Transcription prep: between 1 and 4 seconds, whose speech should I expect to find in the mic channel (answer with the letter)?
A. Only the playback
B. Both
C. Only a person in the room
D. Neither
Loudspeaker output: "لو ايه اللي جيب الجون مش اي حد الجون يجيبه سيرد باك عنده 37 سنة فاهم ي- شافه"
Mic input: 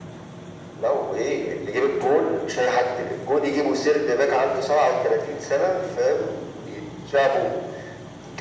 A